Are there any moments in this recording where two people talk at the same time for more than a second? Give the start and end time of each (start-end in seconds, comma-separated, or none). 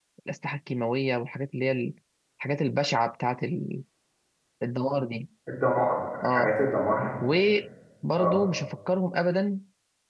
none